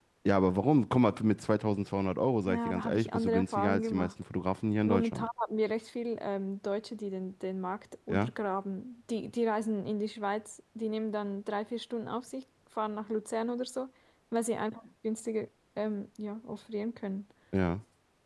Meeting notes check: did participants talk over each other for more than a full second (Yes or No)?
Yes